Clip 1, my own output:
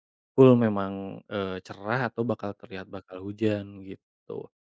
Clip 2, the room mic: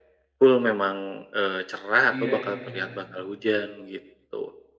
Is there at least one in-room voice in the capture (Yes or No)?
Yes